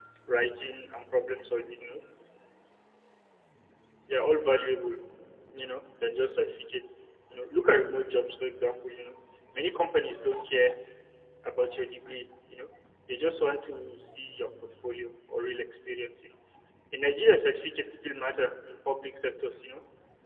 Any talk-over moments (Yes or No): No